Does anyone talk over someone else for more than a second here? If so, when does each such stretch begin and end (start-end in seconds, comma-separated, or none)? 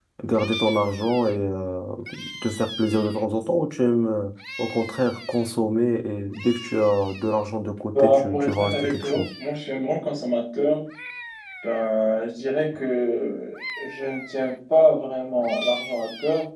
8.0-9.2